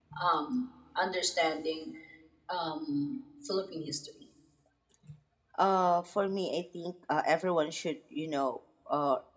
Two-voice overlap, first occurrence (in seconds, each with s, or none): none